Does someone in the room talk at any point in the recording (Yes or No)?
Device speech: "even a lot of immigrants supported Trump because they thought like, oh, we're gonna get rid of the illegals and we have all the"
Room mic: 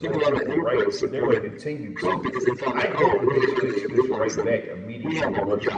Yes